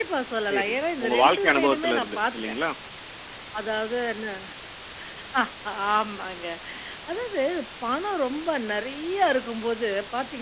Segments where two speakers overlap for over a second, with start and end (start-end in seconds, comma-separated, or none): 0.5-2.5